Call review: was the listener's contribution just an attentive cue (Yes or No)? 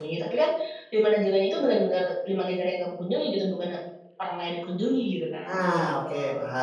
No